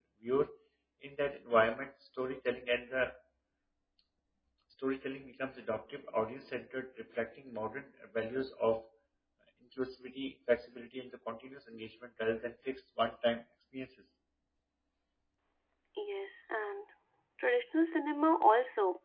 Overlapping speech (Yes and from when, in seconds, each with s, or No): No